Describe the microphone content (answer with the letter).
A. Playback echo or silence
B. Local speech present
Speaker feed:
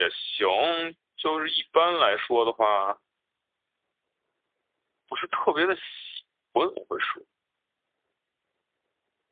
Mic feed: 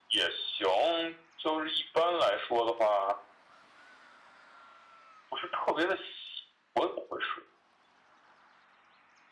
A